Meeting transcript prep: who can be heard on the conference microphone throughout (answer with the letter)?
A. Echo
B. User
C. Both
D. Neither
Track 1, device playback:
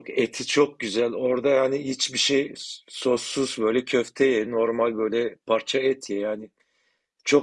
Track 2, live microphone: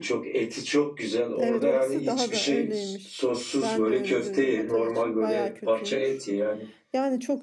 C